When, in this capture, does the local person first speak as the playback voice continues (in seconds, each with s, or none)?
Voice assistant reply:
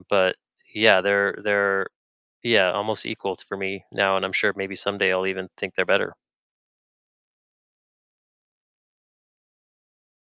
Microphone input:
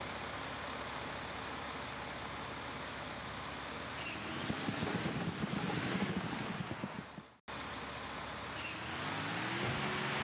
none